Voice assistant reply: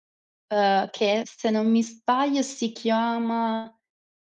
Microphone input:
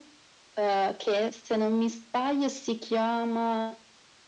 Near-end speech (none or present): none